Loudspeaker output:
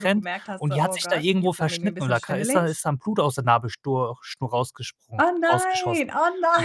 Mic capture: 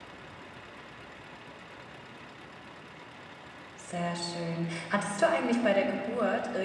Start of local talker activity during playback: 4 s

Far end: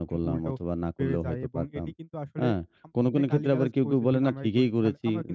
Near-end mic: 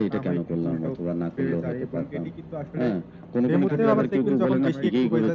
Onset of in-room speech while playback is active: 4 s

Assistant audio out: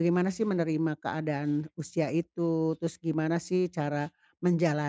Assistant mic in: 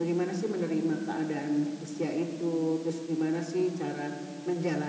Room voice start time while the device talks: none

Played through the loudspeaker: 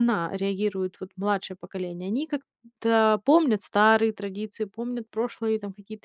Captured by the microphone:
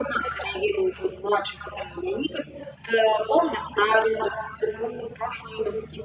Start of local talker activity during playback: none

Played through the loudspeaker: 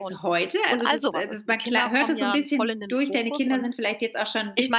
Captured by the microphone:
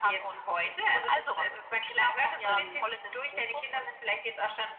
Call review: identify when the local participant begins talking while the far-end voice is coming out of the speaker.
2 s

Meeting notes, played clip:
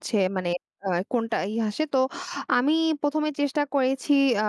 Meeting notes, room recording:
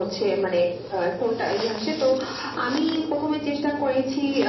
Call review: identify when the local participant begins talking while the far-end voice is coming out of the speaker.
none

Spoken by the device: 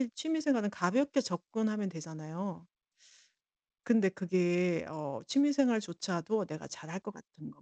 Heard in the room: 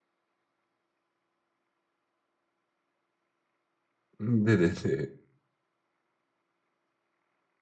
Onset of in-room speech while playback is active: 4 s

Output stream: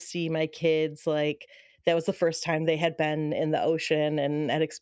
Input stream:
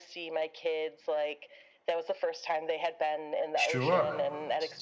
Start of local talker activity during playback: 4 s

